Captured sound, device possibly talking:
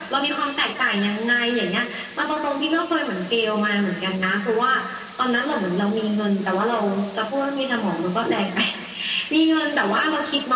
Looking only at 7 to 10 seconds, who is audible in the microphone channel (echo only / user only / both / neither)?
echo only